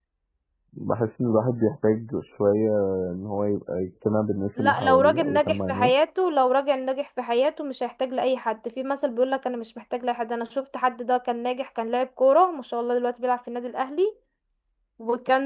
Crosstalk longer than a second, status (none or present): present